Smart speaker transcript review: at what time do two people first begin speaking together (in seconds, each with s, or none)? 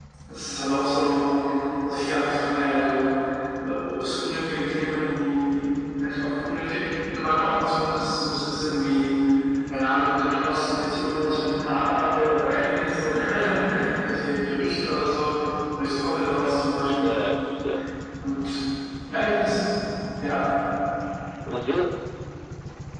none